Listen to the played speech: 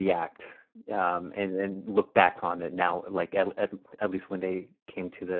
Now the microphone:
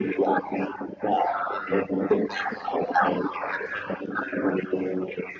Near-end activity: none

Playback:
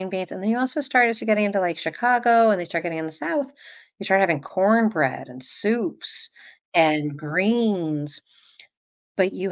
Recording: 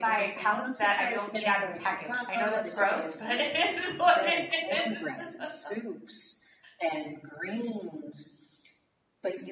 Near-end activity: present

